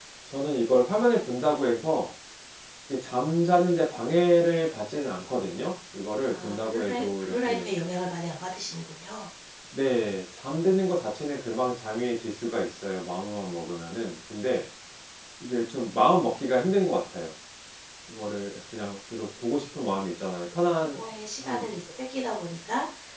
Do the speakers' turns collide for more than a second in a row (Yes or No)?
Yes